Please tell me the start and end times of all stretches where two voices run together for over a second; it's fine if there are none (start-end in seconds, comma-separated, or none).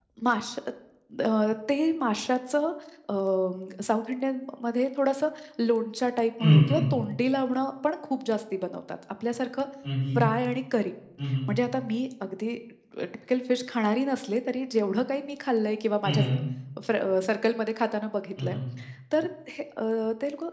none